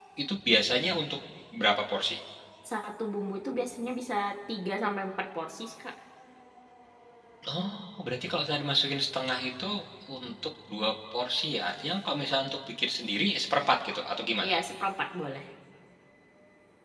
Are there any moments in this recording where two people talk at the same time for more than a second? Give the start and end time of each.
none

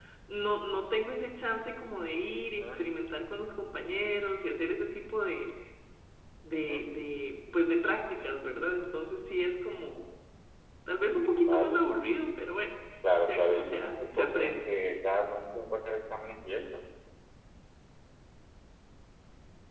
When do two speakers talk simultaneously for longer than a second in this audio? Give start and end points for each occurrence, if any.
13.3-14.6

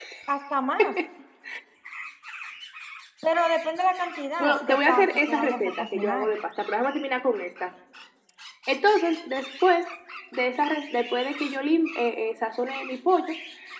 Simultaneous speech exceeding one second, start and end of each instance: 4.4-6.3

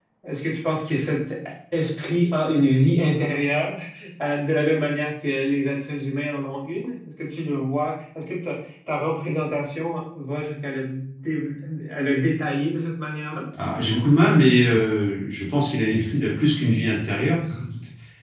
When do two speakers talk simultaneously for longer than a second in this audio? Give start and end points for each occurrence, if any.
none

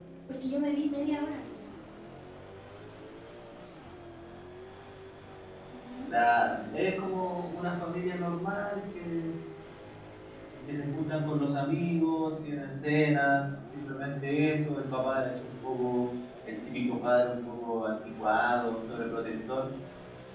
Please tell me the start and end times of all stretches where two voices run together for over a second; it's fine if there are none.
none

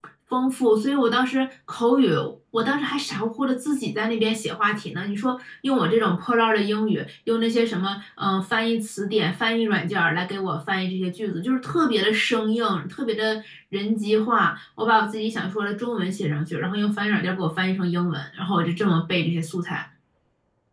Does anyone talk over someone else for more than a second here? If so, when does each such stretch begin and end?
none

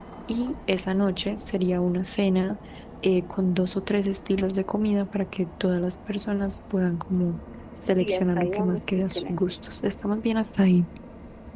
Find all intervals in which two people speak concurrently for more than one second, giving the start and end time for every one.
8.0-9.5

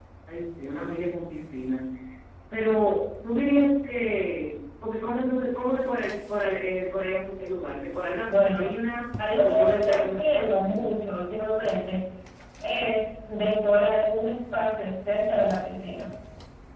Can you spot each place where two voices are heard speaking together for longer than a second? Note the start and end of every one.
9.4-10.8

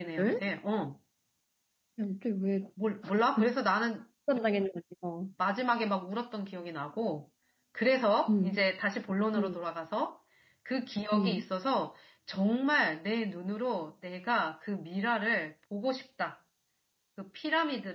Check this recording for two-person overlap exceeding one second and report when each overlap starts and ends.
none

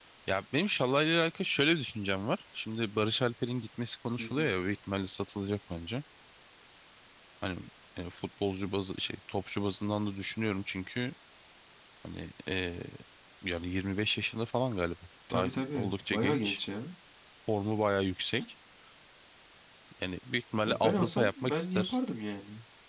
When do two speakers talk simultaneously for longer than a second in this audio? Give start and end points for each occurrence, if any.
15.3-16.6, 20.7-22.0

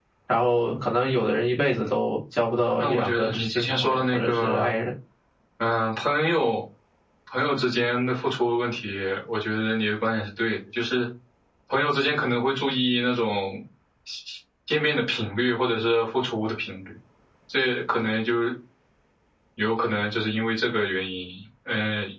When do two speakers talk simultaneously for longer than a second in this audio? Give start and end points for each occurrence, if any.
2.8-4.7

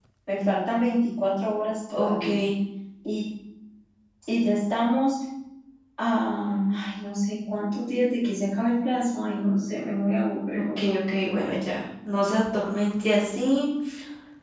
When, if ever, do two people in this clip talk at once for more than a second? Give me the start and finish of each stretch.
none

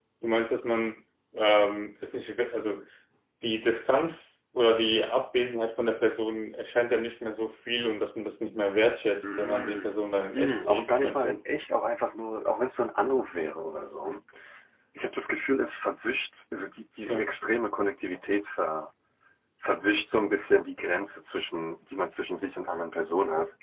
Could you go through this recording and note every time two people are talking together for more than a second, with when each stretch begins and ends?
9.2-11.4

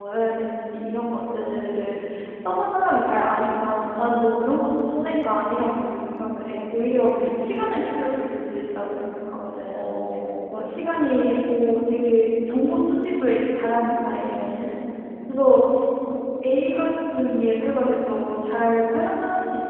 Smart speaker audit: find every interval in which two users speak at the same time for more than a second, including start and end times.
none

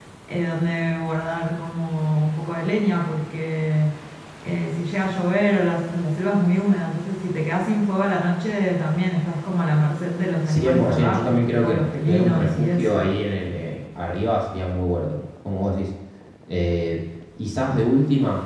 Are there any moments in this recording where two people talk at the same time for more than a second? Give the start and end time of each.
10.5-13.1

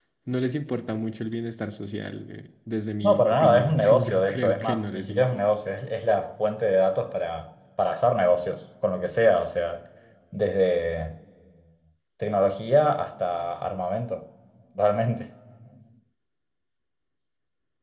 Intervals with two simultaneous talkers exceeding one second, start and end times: 3.0-5.4

